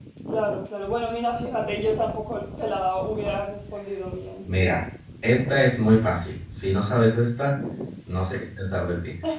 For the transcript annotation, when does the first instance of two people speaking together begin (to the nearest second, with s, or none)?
none